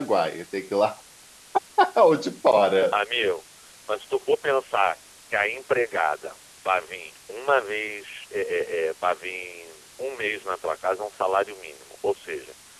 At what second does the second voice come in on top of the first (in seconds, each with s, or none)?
none